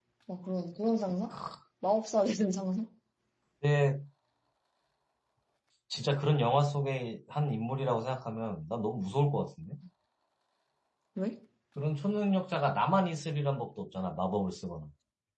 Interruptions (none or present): none